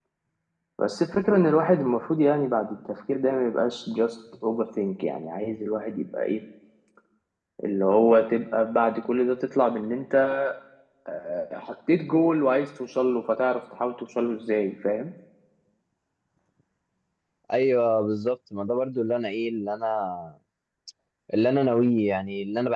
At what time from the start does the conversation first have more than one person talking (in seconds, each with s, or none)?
none